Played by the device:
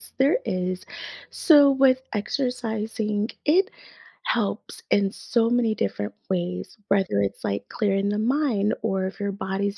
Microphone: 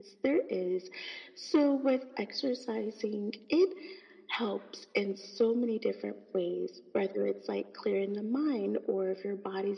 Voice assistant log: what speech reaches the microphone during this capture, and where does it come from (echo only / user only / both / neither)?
echo only